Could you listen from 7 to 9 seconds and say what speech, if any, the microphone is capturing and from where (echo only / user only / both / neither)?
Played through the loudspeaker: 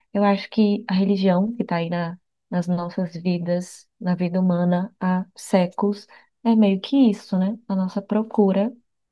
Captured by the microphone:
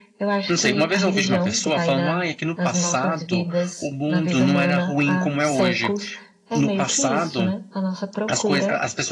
both